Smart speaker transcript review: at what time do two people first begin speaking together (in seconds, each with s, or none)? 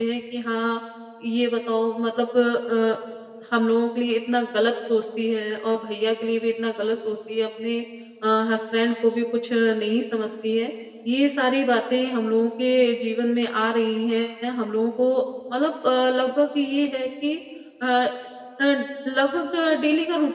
none